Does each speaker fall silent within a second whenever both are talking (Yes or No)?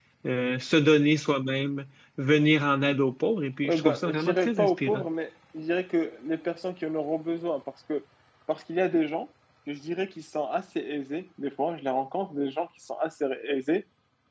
No